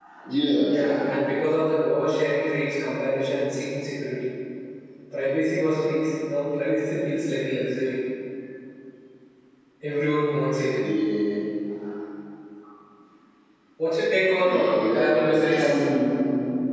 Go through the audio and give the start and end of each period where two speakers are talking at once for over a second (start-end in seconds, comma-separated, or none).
14.4-15.8